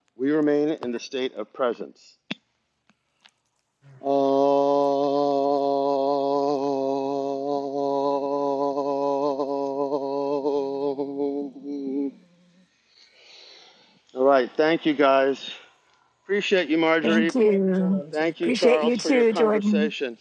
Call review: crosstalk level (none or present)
present